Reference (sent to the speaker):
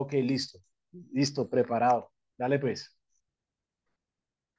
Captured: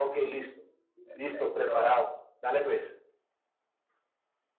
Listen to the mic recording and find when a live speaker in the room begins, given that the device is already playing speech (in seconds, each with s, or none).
1.0 s